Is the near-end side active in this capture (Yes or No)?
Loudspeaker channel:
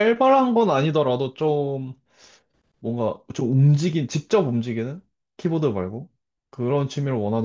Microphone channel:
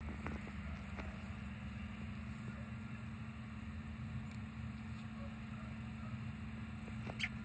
No